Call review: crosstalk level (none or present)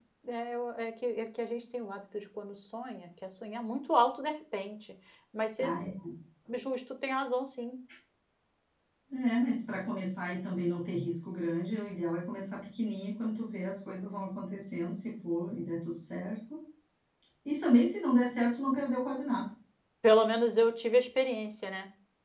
none